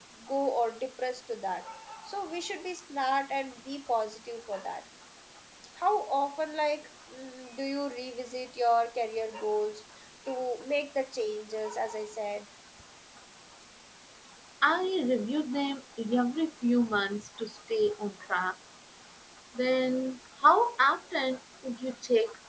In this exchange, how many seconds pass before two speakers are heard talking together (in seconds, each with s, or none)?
none